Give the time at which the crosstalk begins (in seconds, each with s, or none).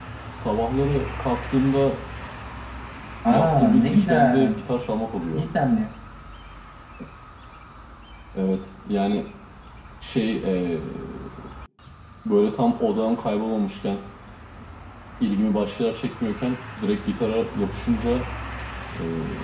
3.3 s